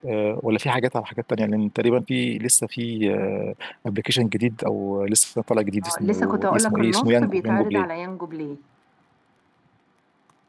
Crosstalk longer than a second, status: present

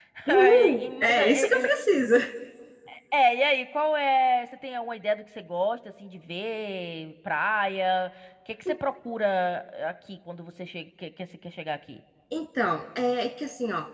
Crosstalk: present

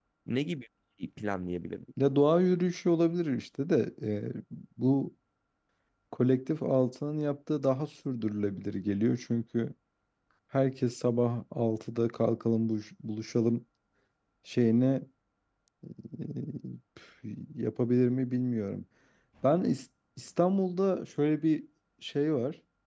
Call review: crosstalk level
none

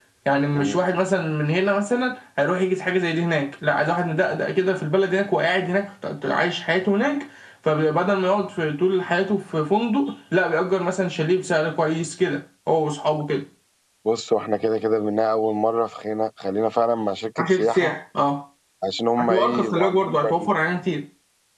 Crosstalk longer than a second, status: present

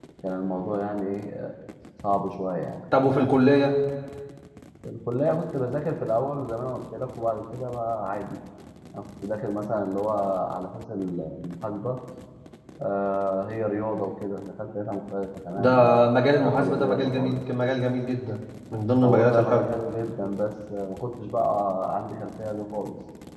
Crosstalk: present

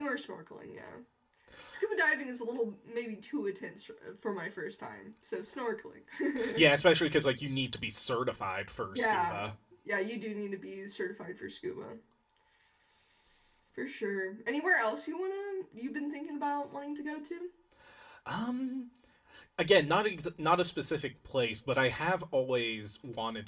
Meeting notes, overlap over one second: none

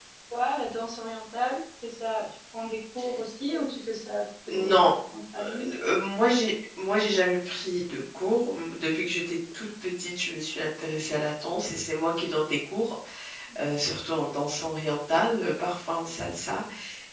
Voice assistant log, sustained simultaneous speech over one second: none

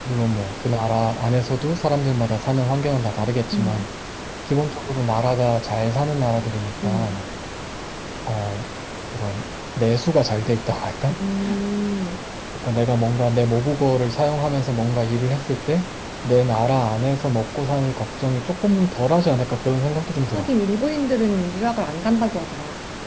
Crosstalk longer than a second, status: none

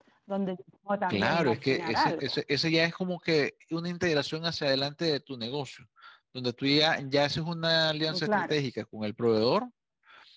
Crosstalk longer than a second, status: present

